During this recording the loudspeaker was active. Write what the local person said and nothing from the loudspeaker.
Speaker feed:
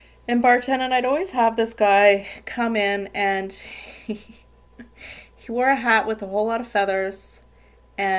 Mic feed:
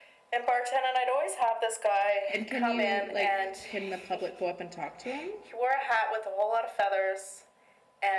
And can you, like, can the public go up and talk to him?

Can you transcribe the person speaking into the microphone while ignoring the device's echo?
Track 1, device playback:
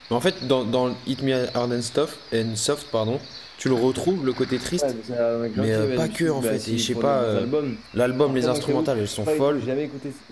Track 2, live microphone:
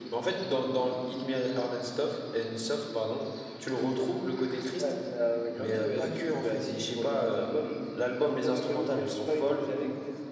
none

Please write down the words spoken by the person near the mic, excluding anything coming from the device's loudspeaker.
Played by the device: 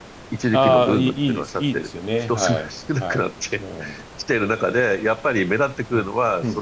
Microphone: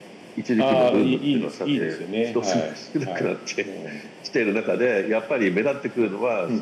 ね。で、

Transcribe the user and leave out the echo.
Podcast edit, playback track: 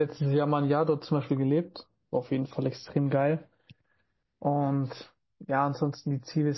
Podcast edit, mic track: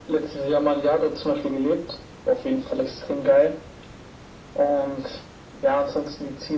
none

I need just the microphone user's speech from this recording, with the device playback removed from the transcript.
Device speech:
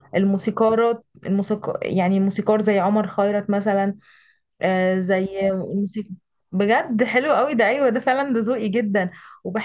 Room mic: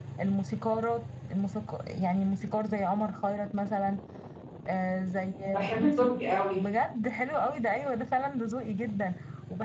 بحب التركي قوي

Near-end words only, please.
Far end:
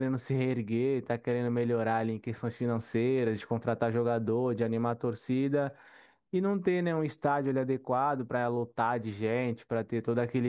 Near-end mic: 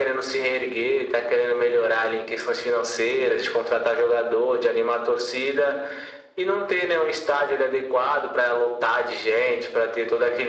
none

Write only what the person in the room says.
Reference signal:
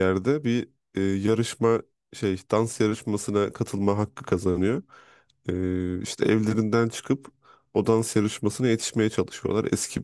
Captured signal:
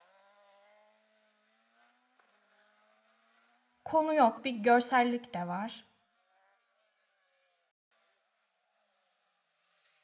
konu yok, bir görsellik de var.

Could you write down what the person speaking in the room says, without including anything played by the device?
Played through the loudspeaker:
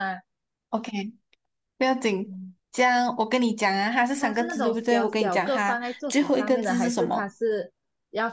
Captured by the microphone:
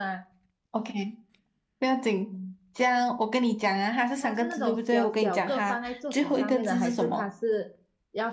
none

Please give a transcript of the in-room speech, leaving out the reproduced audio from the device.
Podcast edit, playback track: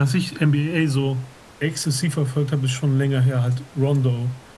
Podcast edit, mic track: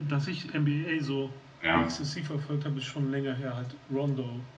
ja.

